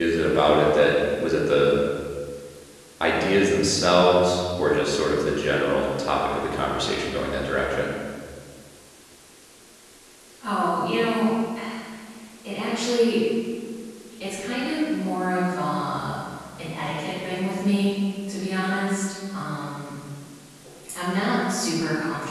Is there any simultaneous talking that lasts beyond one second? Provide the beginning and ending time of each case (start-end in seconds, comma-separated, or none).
none